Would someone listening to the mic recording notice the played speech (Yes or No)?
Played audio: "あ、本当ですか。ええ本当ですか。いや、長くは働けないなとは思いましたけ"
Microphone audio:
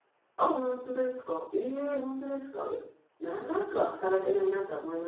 Yes